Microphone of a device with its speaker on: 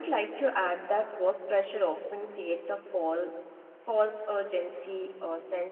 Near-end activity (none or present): none